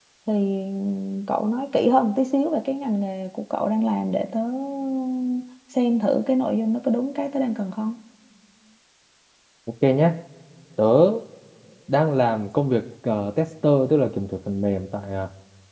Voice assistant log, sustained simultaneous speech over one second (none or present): none